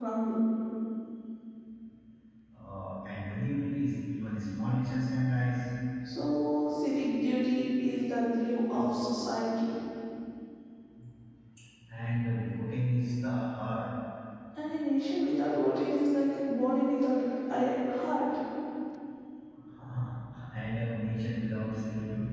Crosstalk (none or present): none